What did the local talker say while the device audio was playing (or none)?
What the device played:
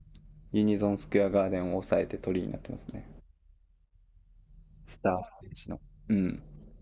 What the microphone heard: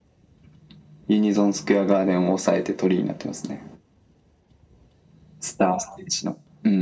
none